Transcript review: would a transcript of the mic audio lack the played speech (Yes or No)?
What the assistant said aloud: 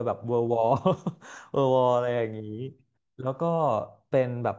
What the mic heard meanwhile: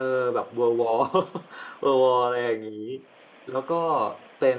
No